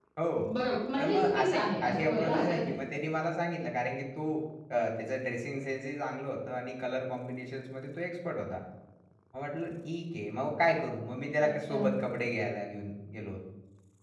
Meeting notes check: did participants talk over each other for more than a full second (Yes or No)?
Yes